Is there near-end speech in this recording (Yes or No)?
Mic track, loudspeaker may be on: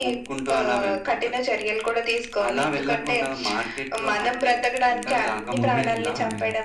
Yes